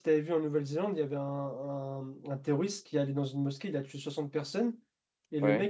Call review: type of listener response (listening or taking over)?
listening